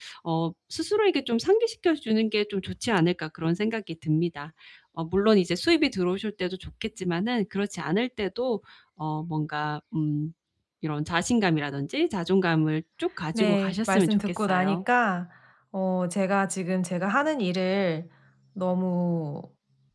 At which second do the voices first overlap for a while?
13 s

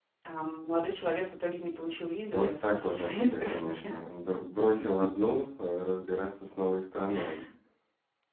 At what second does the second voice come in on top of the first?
2 s

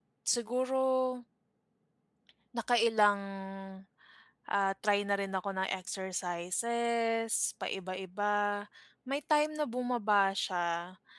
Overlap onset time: none

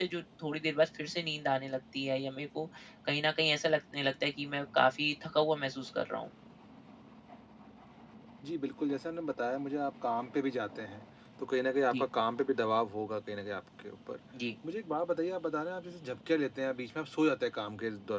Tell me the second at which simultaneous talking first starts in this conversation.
none

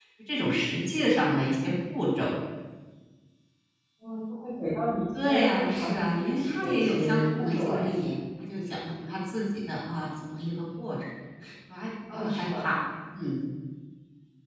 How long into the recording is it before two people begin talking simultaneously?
5 s

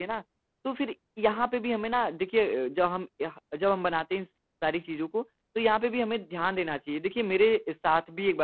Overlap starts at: none

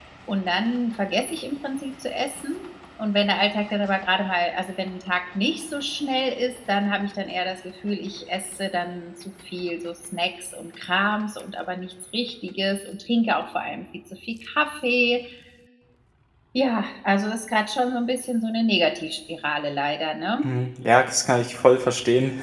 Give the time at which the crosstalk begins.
none

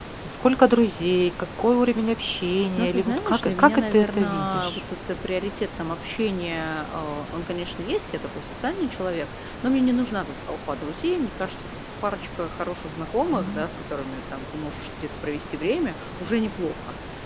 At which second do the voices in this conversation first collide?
3 s

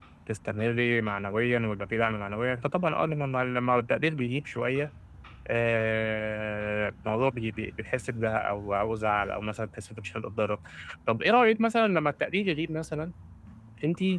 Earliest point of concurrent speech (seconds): none

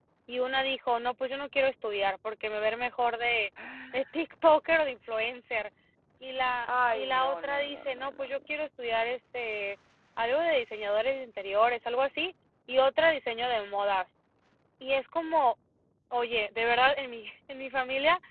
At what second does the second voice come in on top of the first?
7 s

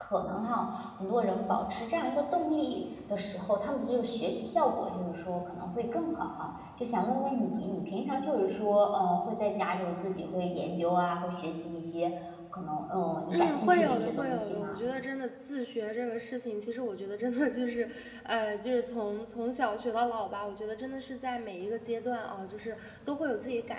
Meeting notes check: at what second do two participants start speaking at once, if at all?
13 s

